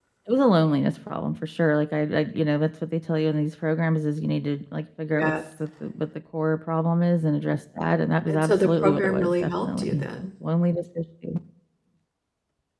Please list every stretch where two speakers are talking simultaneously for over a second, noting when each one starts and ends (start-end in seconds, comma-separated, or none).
8.3-10.3